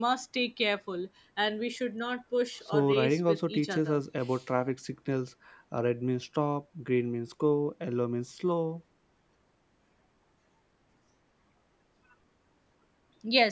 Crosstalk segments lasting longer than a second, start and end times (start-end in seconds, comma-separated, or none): 2.7-4.0